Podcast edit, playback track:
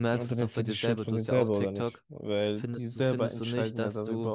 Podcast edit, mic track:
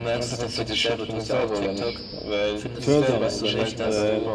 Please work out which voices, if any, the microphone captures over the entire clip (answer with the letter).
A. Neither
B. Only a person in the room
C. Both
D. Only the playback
C